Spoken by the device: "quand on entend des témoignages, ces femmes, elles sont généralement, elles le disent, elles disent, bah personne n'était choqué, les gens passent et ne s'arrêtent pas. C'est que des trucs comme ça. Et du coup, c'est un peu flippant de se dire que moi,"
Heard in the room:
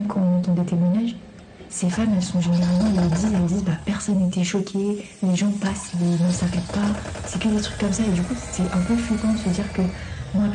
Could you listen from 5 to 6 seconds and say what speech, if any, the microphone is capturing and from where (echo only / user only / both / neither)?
echo only